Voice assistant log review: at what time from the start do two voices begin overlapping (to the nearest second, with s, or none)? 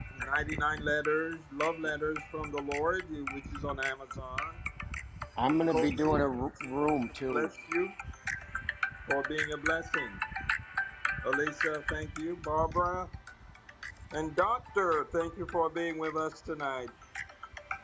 6 s